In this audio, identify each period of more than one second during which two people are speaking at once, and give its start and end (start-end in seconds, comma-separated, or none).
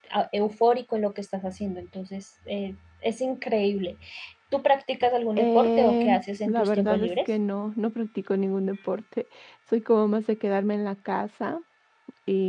5.4-7.3